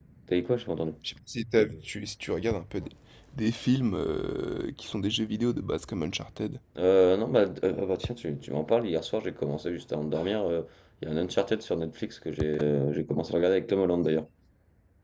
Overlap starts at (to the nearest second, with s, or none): none